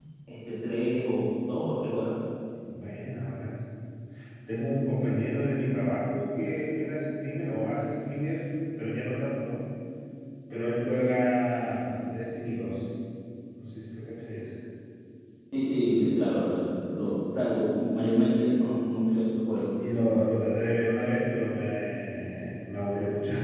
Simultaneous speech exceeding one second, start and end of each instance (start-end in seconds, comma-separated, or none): none